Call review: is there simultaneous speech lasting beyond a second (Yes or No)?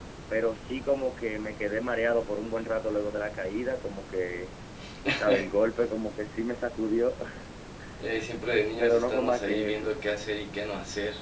Yes